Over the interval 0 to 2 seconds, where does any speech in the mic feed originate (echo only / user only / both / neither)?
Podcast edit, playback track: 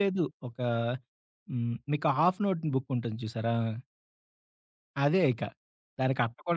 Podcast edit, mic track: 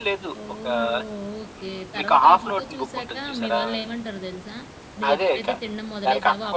both